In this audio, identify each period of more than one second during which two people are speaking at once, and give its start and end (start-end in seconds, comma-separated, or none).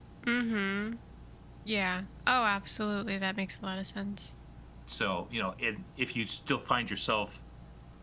none